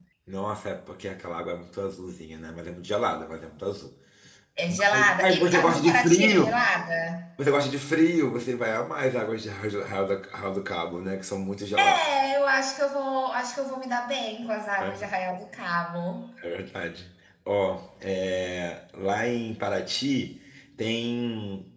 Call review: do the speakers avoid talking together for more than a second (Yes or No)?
No